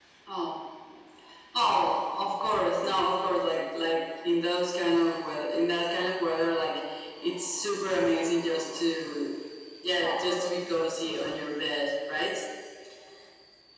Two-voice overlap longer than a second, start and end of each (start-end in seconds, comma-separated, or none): 9.9-11.4